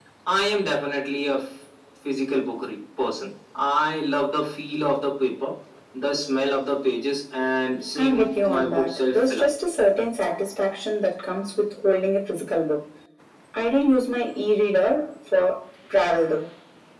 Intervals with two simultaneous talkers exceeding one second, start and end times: 8.0-9.5

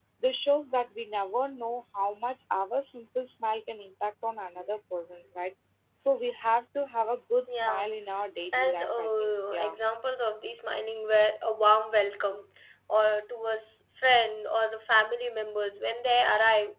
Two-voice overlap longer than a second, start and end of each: 8.5-9.8

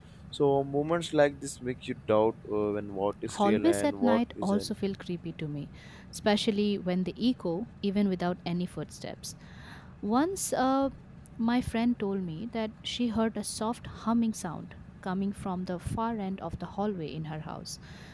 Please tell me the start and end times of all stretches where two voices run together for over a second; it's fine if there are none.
3.3-4.7

